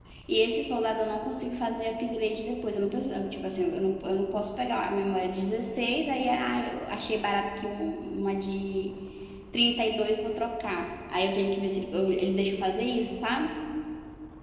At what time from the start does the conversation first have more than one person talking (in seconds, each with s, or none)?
none